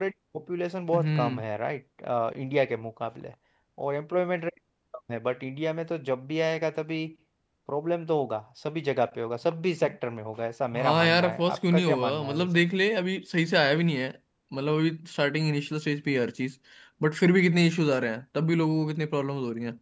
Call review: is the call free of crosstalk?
No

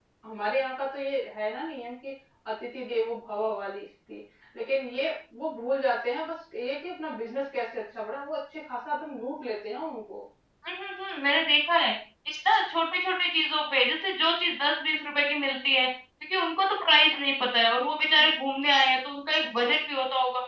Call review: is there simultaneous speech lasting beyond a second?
No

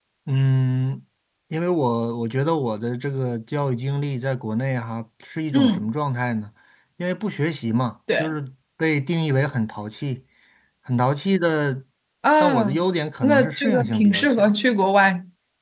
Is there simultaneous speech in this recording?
Yes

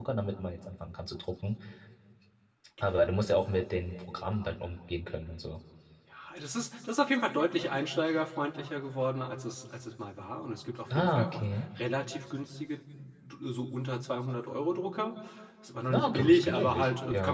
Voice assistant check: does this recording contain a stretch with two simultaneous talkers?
Yes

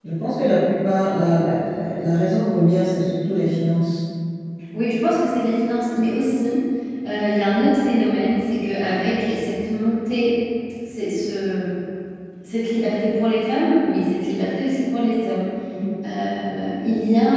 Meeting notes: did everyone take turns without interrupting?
Yes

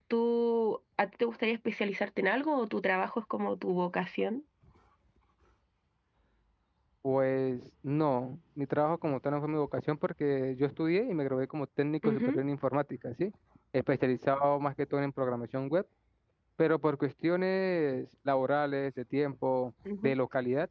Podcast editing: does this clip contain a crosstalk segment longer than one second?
No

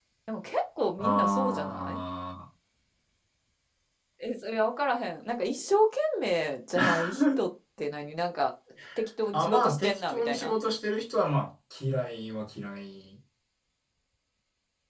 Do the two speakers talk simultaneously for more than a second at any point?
Yes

